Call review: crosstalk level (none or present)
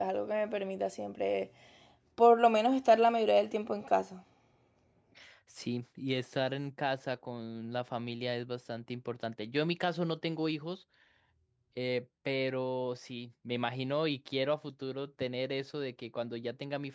none